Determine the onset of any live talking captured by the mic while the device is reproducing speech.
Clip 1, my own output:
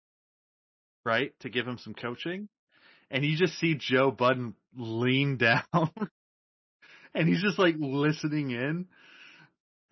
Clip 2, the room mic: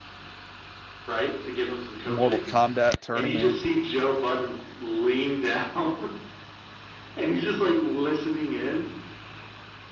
2 s

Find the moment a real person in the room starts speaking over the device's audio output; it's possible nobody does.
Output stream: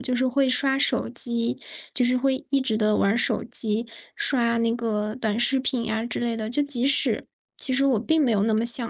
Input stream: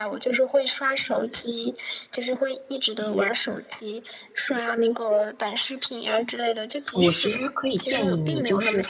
7 s

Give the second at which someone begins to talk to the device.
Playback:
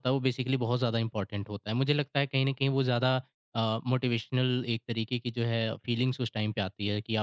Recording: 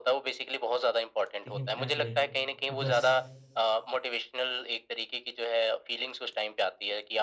1 s

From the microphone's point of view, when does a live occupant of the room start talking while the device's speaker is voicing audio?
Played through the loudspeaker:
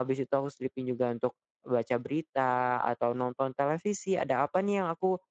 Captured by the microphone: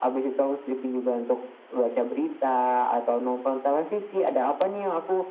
none

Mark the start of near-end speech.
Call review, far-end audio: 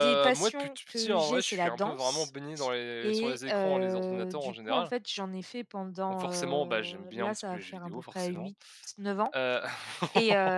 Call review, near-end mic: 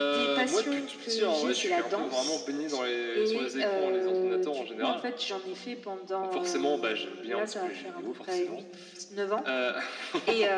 none

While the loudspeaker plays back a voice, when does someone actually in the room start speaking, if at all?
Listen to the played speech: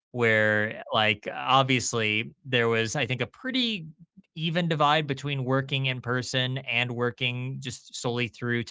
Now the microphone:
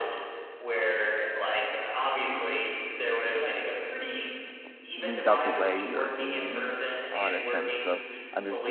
5 s

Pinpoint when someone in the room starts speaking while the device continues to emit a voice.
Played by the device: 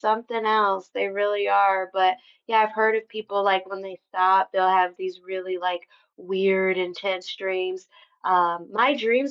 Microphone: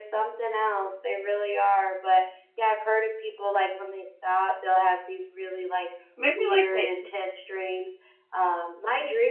6 s

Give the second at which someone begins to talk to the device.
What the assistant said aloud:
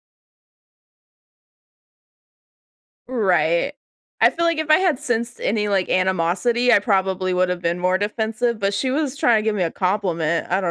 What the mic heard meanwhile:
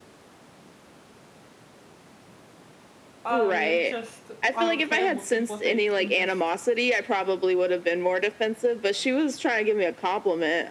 3 s

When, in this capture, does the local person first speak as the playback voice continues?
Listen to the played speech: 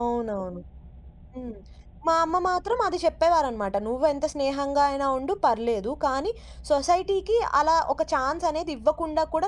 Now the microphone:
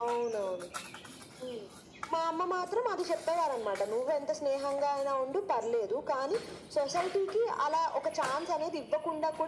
none

